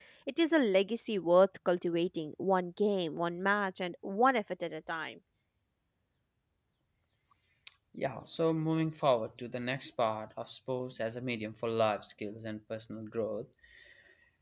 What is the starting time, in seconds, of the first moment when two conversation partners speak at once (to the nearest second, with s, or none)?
none